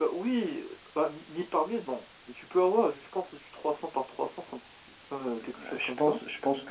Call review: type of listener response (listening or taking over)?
taking over